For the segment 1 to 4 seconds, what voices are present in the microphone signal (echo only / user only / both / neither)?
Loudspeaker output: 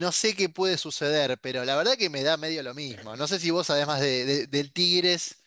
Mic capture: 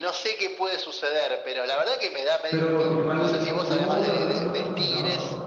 both